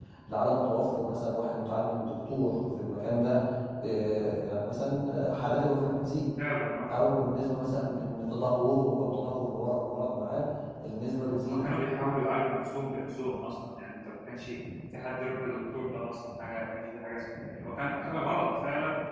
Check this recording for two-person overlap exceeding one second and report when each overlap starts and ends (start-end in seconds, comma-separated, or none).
none